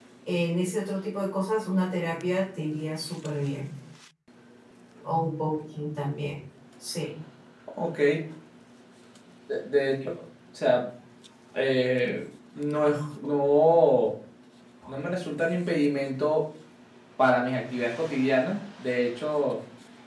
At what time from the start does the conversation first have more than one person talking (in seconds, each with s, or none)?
none